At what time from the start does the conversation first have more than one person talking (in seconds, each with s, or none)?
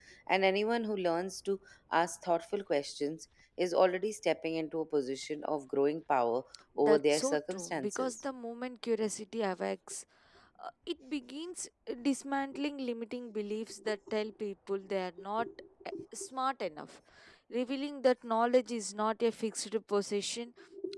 6.8 s